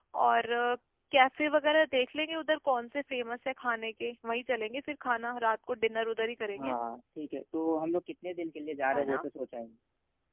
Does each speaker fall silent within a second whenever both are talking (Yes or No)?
Yes